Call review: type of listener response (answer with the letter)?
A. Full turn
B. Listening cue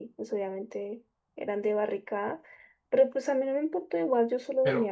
A